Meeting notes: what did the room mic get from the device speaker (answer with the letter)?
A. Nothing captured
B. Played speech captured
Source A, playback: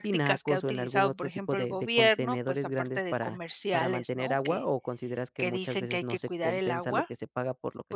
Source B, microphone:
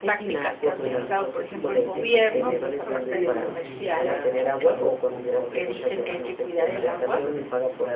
B